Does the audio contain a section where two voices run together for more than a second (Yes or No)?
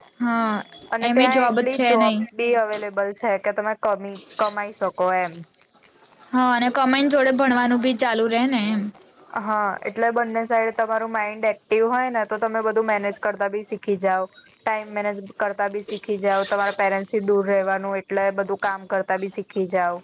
Yes